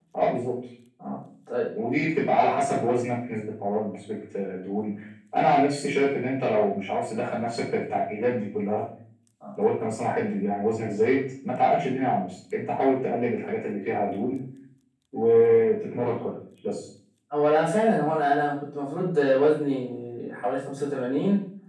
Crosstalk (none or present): none